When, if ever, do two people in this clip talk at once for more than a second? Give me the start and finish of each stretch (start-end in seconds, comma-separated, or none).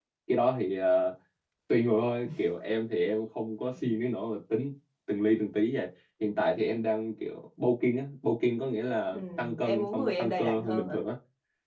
9.1-11.0